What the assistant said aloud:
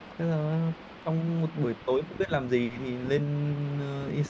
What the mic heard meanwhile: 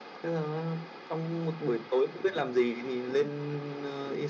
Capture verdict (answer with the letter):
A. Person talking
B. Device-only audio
B